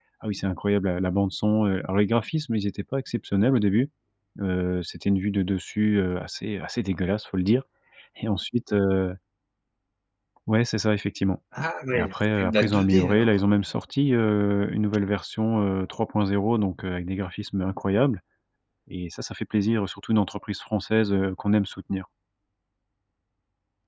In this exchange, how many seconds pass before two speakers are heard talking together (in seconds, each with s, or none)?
11.9 s